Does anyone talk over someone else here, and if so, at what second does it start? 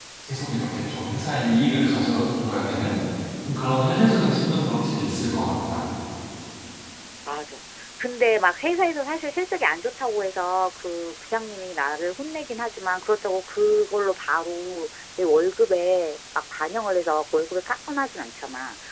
none

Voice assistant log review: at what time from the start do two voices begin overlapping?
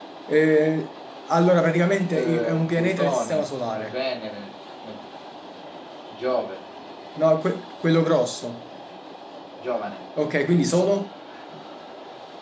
2.1 s

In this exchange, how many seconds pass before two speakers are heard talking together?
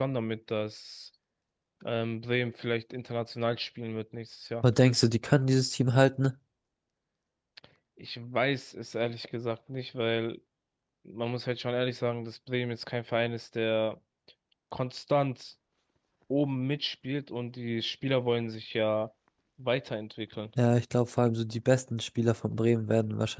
none

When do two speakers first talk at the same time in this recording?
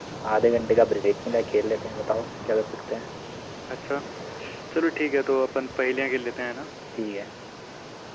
none

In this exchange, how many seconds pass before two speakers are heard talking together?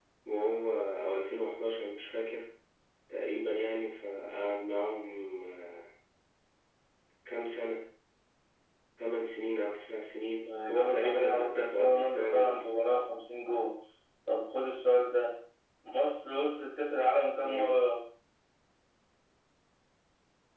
10.4 s

